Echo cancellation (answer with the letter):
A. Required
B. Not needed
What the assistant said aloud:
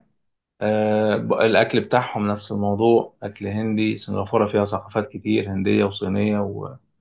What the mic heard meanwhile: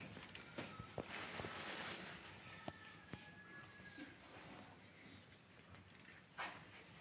B